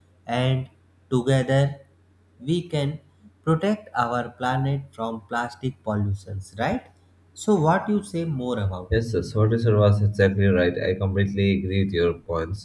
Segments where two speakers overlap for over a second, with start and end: none

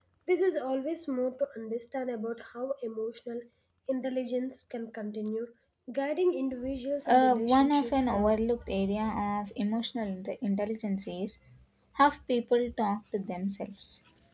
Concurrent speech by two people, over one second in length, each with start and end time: 7.0-8.4

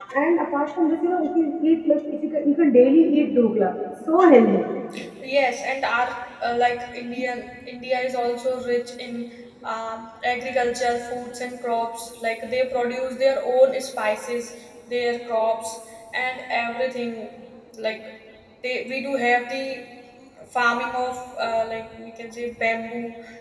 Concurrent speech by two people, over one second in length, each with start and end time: none

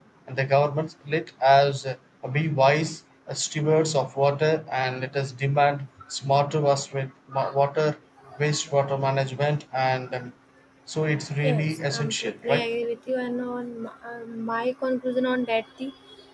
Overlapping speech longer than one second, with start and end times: 11.4-12.7

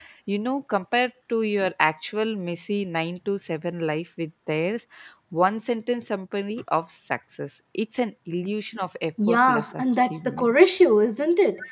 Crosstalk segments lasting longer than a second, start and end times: 9.3-10.5

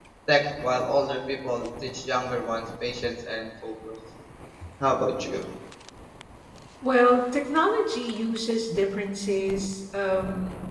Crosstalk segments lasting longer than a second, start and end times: none

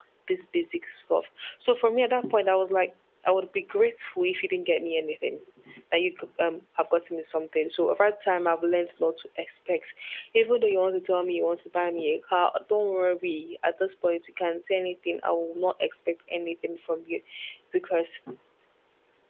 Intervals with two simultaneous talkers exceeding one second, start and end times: none

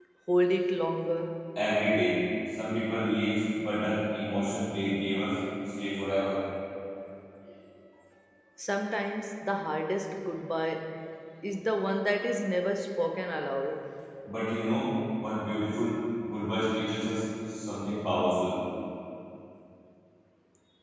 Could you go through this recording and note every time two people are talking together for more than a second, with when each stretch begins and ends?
none

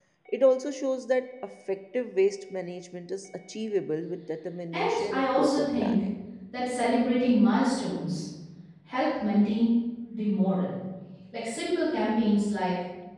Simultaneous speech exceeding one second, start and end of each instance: 4.7-6.0

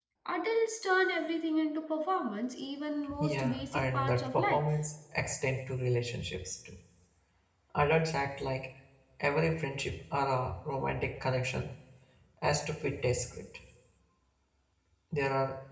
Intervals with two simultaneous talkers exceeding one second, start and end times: 3.2-4.6

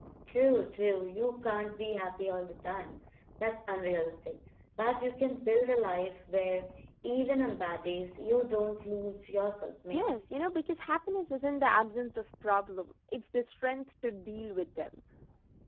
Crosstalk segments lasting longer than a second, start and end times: none

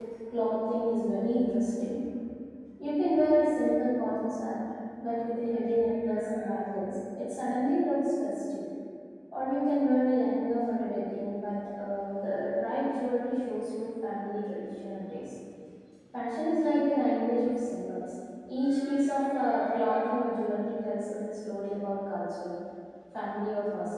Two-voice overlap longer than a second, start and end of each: none

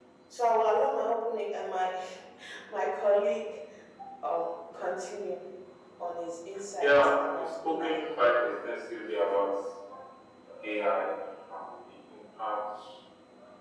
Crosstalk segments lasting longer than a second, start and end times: 6.8-8.0

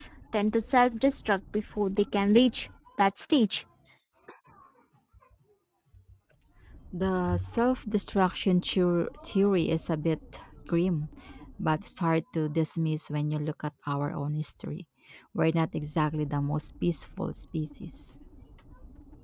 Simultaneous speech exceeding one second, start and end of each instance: none

